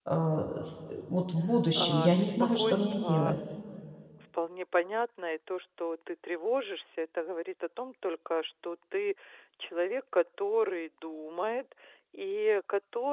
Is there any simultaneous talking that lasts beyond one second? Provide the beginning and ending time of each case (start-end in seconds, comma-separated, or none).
1.8-3.3